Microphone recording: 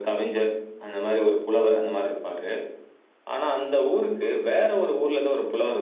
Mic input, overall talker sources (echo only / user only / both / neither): echo only